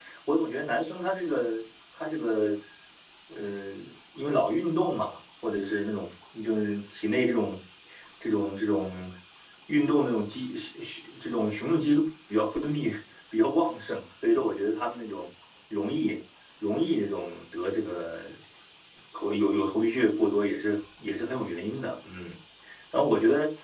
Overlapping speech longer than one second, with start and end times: none

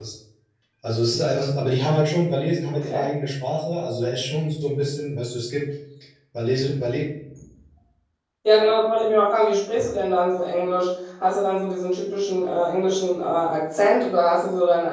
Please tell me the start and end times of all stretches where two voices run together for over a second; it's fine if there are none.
none

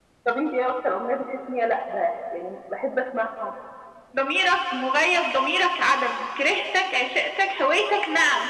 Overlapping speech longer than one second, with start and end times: none

